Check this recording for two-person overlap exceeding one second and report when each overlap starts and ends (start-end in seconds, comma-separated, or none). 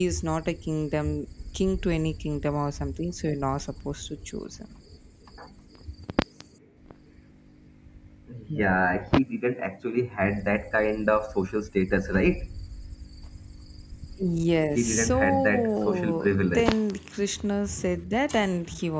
14.8-16.7